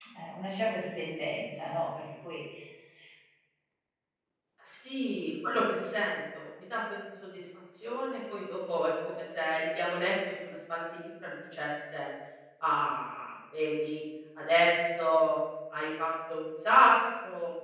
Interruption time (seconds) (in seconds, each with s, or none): none